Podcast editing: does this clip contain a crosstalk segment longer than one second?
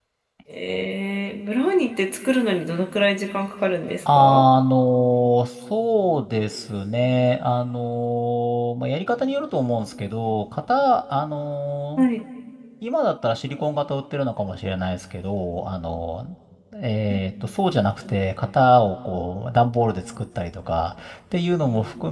No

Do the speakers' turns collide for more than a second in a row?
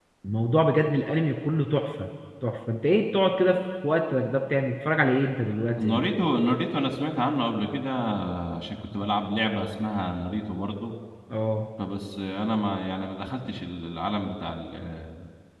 No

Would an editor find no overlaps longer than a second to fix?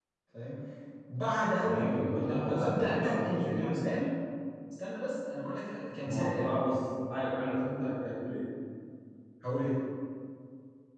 No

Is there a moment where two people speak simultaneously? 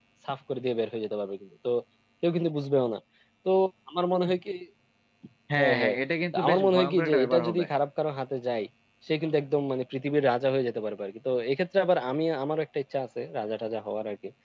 Yes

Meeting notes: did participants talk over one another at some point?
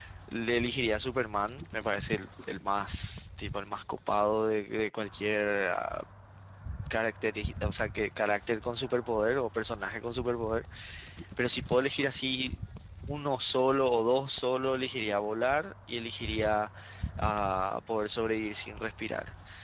No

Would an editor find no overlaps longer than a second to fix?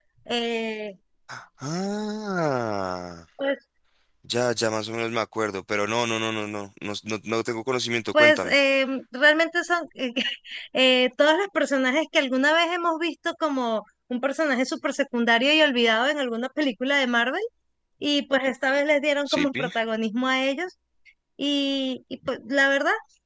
Yes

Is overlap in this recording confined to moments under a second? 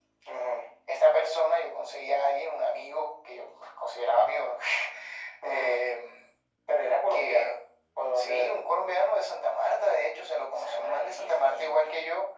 No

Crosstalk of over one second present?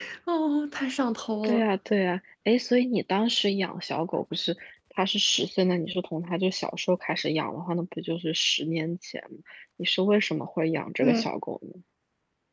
No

